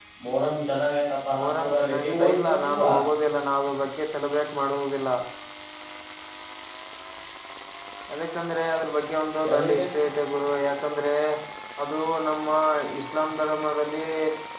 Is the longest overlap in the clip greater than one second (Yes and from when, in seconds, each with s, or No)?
Yes, from 1.4 s